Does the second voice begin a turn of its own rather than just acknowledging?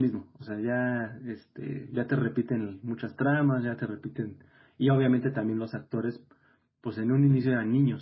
No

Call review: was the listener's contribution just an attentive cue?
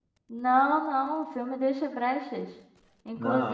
Yes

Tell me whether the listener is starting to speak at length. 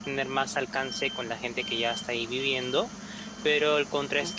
No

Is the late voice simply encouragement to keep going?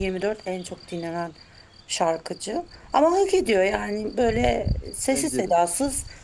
Yes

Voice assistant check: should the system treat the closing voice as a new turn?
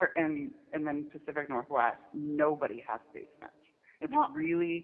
No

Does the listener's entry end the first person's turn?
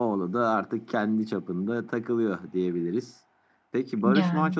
No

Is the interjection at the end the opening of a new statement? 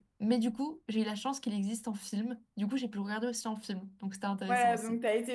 Yes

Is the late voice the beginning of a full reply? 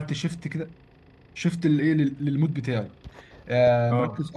No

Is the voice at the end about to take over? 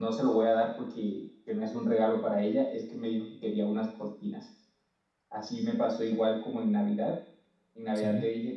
No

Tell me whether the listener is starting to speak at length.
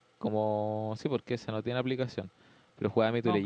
No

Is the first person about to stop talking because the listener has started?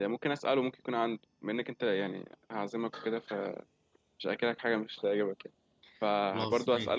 No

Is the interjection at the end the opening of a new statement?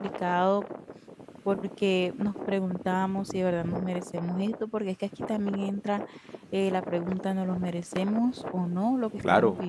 Yes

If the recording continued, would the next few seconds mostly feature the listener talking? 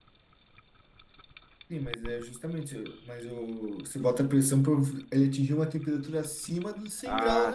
Yes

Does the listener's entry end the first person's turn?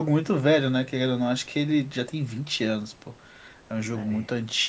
No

